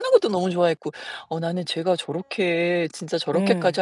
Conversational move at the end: listening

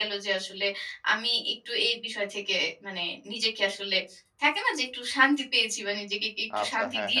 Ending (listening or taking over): taking over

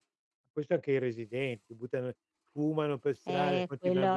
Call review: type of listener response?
taking over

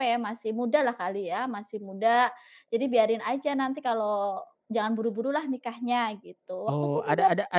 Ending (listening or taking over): taking over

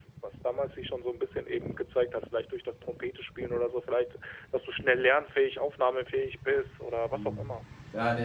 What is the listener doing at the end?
taking over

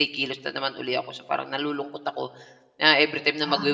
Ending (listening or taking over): listening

